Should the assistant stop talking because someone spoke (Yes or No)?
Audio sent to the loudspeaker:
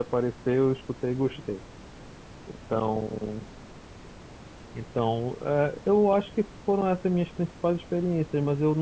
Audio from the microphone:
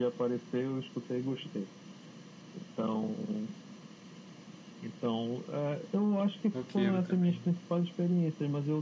Yes